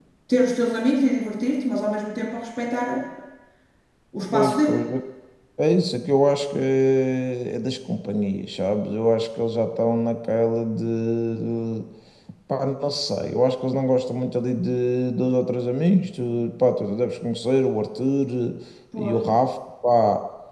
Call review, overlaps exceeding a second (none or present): none